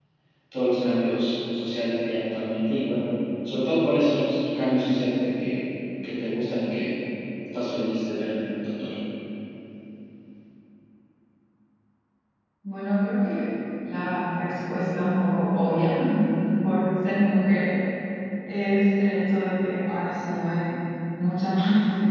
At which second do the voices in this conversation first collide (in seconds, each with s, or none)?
none